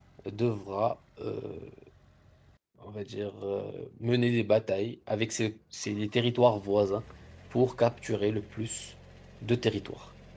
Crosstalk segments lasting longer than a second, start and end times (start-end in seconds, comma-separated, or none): none